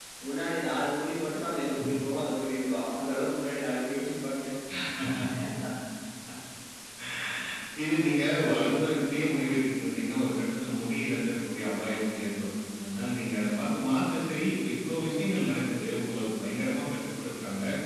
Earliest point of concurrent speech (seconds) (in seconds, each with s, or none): none